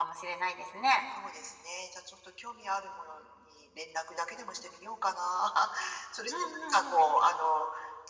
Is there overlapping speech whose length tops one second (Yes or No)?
No